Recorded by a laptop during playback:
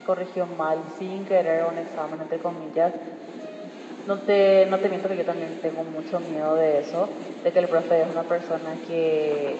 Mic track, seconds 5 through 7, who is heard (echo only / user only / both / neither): user only